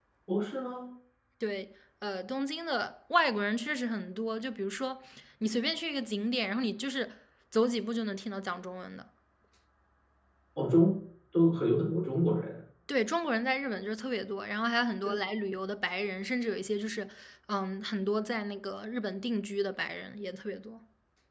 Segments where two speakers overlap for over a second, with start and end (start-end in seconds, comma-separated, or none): none